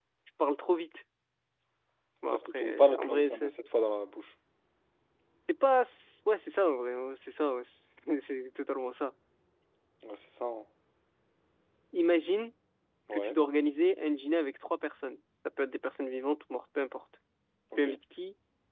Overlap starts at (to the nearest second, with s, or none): 2 s